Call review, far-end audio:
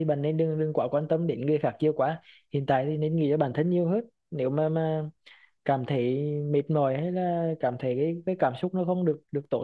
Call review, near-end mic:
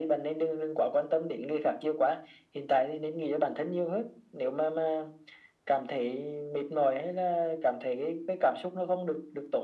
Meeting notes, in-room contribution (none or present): none